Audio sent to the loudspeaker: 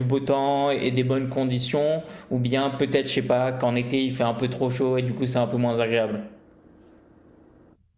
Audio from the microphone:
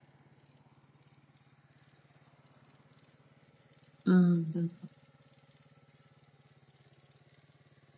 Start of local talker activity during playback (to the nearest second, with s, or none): 4 s